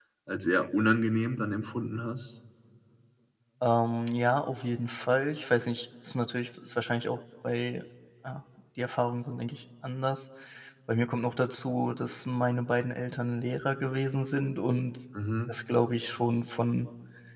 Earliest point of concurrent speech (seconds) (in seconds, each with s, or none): none